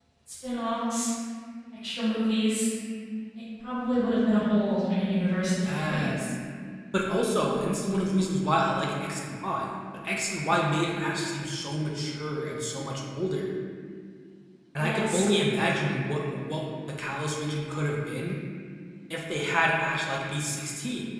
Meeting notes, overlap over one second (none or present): none